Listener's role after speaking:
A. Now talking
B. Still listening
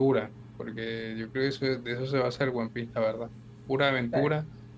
B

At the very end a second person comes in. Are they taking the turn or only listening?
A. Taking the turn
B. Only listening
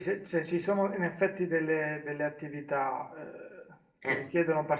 B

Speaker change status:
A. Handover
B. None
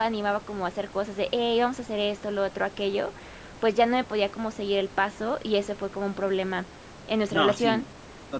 A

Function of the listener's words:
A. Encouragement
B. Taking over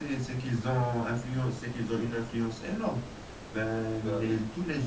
A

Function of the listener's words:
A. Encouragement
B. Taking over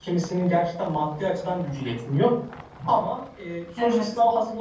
A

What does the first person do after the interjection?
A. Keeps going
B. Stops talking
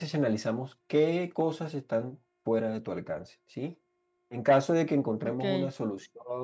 A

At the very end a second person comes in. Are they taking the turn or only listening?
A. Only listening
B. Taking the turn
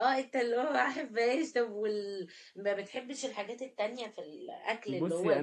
B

